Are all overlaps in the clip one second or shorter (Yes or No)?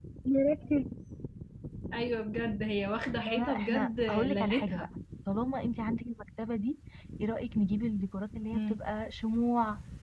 No